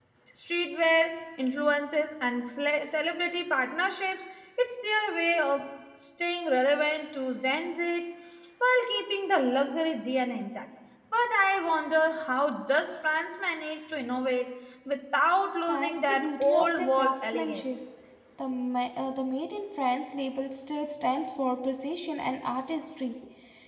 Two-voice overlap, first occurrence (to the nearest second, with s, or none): 16 s